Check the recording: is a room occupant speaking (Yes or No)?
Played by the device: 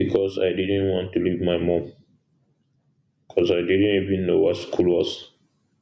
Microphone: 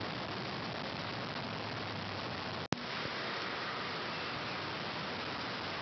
No